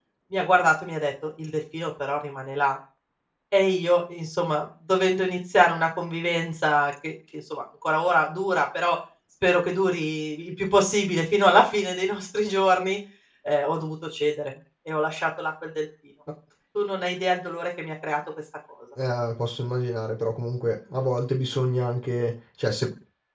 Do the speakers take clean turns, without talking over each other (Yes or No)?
Yes